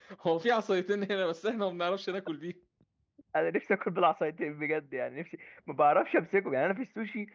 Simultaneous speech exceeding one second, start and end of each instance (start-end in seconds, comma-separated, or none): none